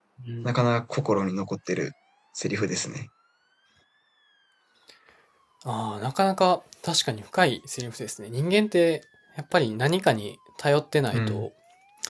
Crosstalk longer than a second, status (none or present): none